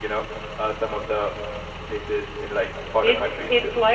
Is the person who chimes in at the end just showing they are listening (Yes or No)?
No